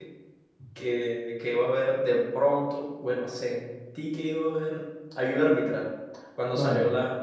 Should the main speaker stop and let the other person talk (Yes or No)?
No